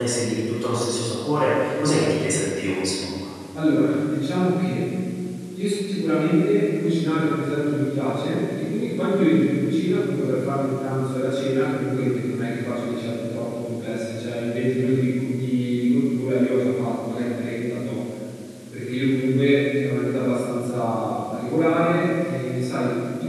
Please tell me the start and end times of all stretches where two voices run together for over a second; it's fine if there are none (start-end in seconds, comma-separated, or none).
none